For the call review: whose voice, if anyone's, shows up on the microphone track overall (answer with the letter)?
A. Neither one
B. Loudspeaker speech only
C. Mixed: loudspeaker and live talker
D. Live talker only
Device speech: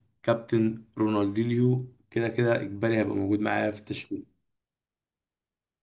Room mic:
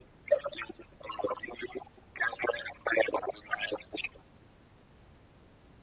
B